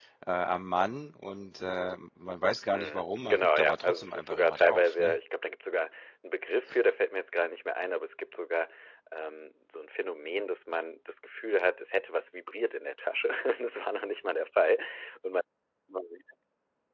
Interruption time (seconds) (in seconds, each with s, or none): 2.7 s